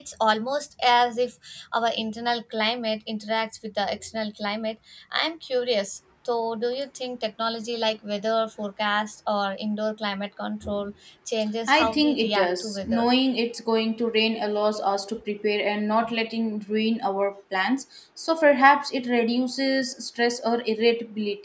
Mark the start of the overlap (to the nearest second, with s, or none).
12 s